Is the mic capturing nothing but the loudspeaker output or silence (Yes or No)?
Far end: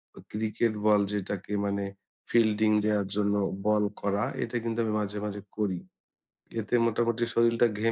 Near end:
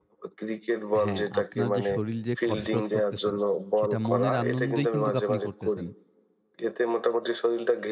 No